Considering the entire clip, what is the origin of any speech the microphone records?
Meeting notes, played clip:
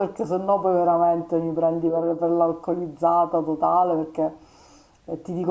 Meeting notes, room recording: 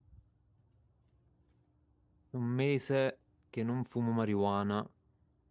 user only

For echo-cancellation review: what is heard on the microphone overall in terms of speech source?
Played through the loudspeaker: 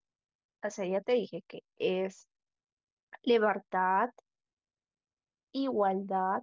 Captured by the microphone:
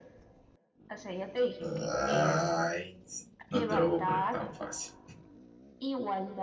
both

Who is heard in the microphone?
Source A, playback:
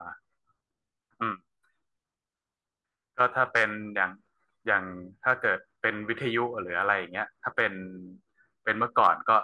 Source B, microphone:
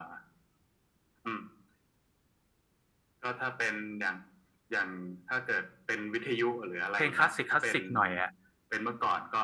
both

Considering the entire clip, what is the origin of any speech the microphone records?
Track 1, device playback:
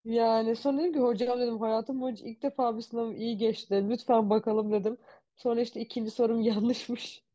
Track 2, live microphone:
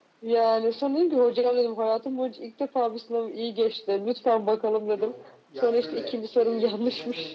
both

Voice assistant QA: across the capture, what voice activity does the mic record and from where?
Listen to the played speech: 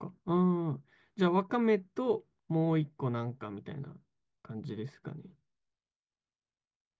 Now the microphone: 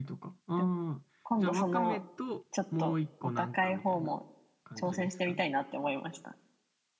both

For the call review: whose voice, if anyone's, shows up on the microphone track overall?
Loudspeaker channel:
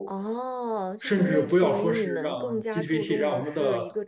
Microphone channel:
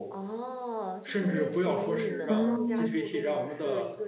both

